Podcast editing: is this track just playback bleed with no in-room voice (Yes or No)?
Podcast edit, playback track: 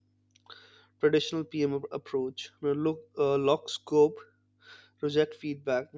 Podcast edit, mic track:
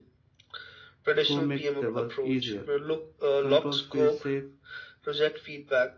No